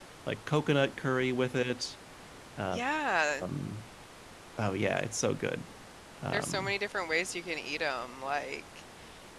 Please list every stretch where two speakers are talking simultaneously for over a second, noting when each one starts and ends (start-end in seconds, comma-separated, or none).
none